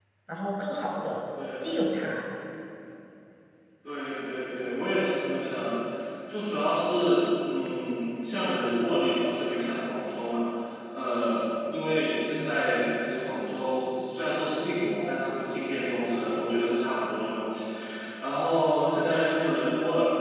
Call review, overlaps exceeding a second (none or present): none